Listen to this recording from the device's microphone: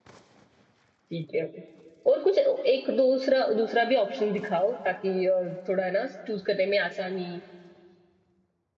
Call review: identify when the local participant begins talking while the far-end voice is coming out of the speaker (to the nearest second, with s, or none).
1 s